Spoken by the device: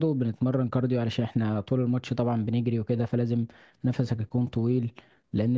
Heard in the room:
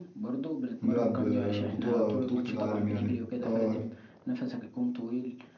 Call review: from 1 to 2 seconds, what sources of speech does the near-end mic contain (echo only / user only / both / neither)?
both